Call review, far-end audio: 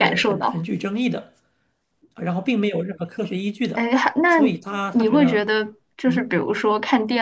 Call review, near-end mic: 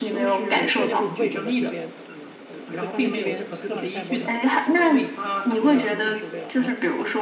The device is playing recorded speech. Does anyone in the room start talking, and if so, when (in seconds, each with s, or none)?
0.5 s